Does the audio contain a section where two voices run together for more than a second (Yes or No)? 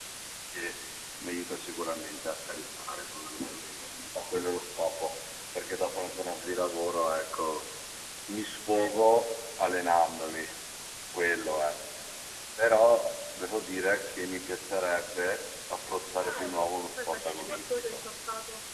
Yes